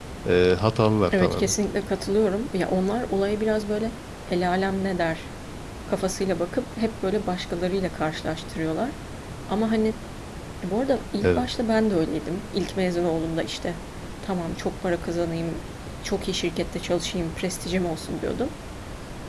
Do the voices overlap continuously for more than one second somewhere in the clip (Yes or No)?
No